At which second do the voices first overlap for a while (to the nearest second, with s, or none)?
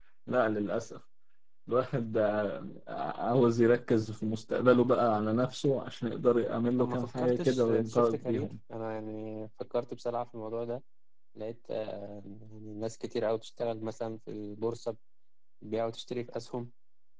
7 s